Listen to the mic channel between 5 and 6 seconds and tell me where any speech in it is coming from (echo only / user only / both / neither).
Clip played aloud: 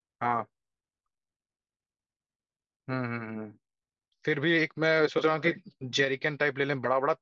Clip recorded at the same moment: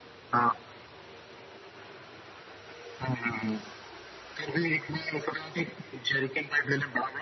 echo only